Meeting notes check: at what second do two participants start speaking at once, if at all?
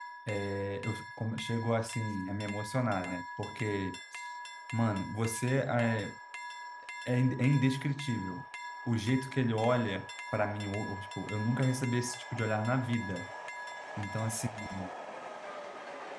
none

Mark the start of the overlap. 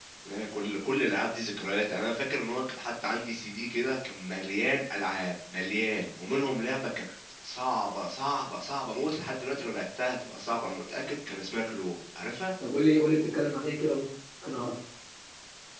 none

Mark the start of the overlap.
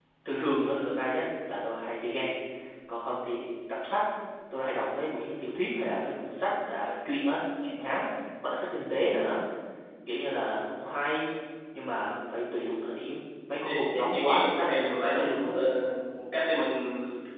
13.5 s

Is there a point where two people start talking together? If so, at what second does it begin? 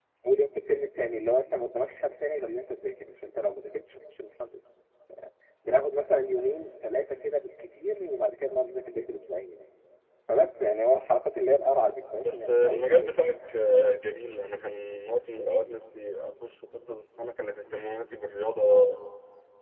12.2 s

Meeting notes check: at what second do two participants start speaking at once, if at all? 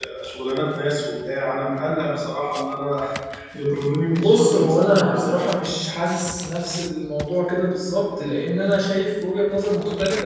4.1 s

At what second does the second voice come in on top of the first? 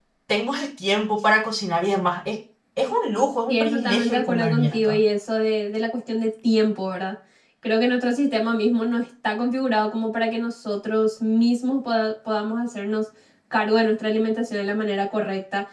3.5 s

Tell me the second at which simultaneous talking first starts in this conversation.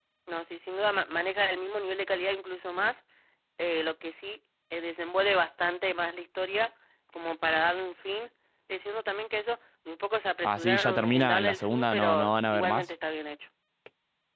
10.4 s

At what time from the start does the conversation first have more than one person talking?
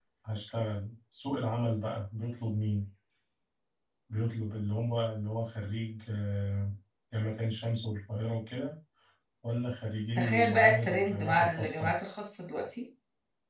10.2 s

